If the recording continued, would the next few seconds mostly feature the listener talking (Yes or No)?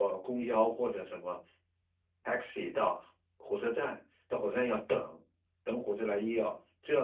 No